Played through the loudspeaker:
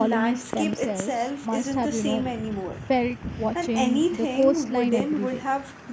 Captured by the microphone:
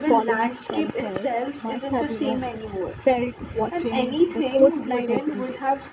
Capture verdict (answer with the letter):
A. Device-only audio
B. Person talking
A